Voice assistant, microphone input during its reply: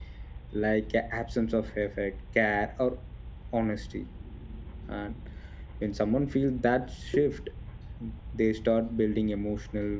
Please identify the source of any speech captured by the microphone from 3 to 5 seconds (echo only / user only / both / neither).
user only